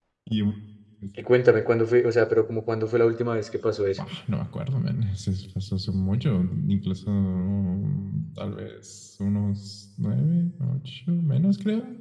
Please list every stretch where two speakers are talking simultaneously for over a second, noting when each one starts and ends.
none

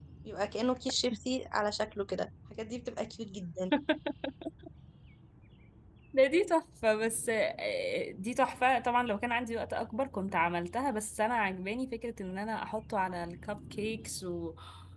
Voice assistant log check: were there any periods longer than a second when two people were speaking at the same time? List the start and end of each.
none

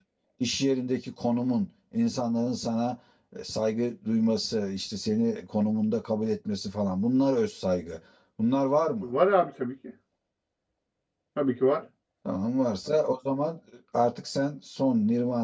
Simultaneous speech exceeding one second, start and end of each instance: none

